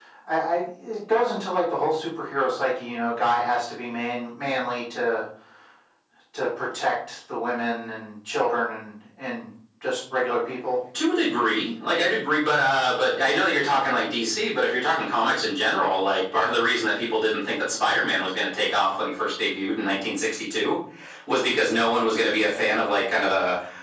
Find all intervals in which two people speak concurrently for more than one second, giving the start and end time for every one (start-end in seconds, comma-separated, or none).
none